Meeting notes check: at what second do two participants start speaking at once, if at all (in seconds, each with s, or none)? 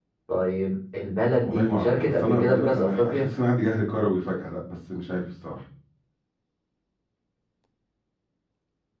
1.4 s